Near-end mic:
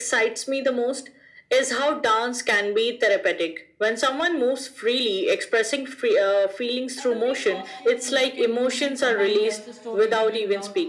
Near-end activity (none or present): present